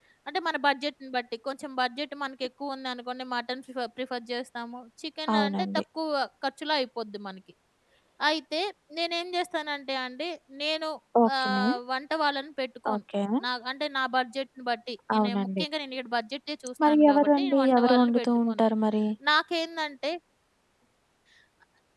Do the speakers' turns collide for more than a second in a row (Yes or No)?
Yes